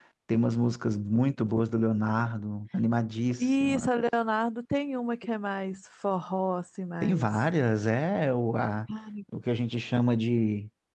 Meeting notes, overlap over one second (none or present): none